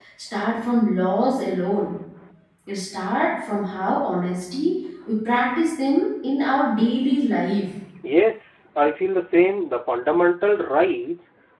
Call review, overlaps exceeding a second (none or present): none